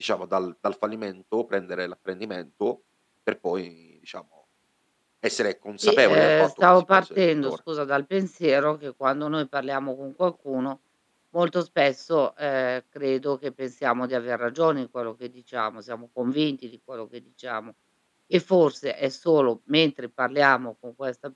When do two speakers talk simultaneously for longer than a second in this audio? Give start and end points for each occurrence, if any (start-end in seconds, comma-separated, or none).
5.8-7.5